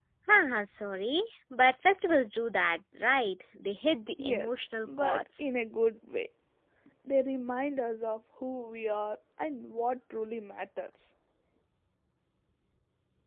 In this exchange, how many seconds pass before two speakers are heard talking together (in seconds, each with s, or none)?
4.2 s